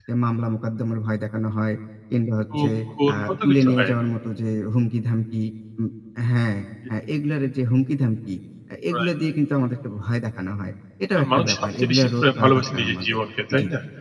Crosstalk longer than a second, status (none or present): present